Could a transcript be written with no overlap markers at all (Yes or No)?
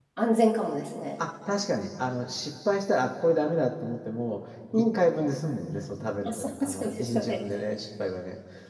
No